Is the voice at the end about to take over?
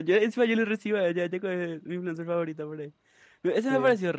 No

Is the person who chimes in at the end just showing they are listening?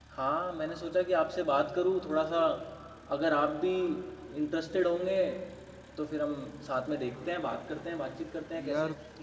No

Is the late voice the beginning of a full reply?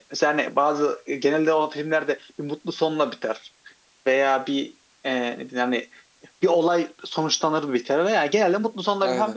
No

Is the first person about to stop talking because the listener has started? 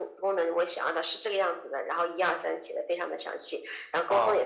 No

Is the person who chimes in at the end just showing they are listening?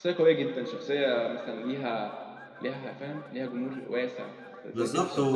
No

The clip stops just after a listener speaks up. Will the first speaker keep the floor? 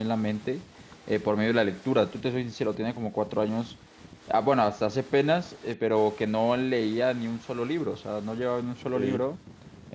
Yes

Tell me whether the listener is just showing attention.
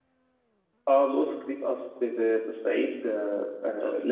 Yes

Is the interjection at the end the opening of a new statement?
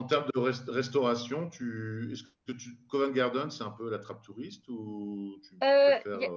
Yes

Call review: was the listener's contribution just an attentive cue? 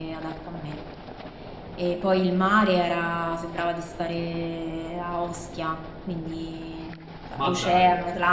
Yes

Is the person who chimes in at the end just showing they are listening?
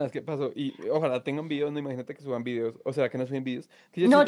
No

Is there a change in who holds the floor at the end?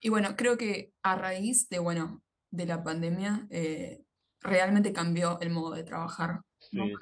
Yes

